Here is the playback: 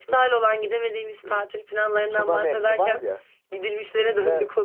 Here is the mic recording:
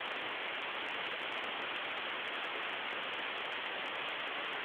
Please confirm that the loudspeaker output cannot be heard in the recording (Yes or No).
Yes